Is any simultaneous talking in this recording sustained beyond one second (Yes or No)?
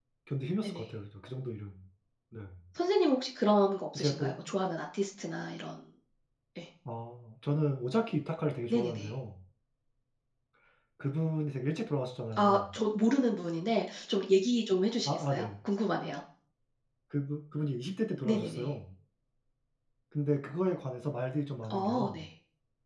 No